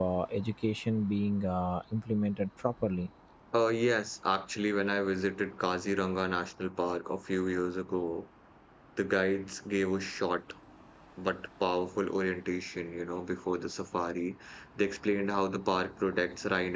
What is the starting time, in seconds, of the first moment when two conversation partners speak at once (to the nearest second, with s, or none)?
none